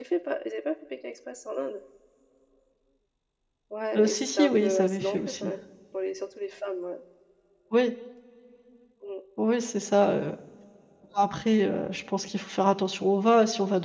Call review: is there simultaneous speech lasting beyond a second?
Yes, from 4.0 s

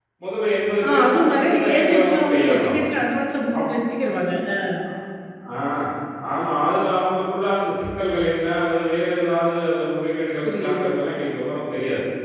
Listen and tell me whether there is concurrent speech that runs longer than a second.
Yes, from 1.1 s

